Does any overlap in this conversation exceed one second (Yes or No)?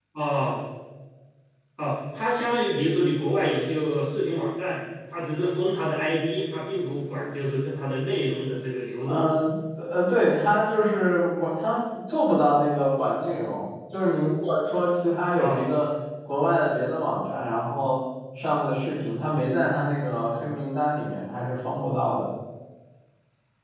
No